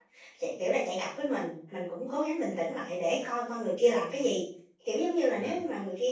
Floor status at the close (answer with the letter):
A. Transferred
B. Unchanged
B